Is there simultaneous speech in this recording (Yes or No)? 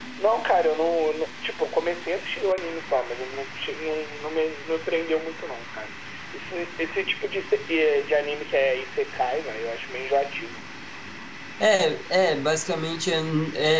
No